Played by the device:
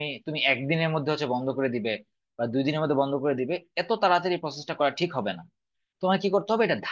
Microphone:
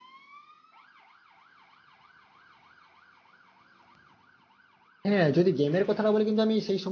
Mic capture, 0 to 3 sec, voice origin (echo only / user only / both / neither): neither